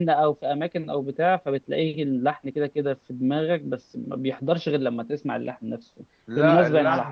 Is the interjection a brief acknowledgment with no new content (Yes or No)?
Yes